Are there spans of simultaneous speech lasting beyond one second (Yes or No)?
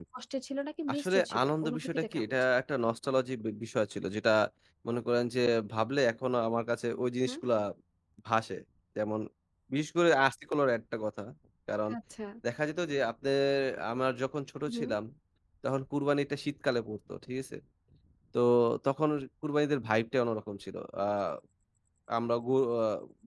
Yes